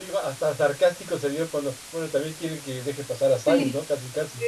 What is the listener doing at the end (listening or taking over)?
taking over